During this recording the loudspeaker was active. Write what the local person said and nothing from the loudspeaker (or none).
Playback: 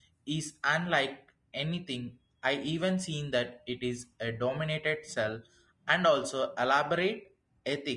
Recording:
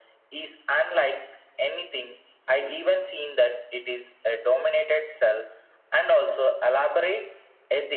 none